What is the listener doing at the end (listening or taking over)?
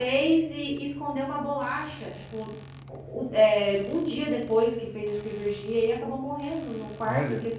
listening